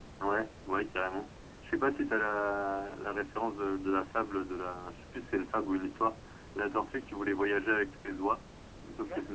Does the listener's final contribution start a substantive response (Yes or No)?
No